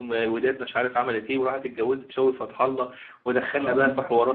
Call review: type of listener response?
listening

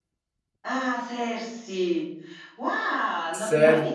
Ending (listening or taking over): listening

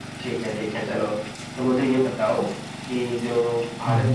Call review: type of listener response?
listening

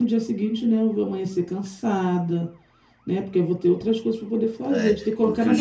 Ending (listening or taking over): taking over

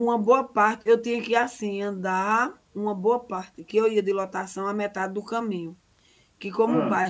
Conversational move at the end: listening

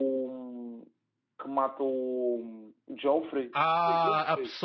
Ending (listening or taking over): taking over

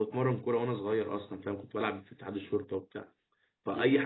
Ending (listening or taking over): listening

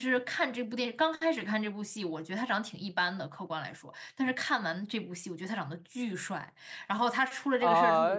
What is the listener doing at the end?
taking over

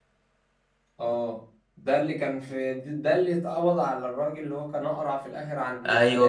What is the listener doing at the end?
taking over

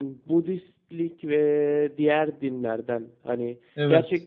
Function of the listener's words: listening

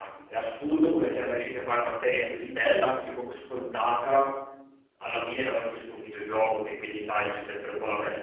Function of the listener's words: listening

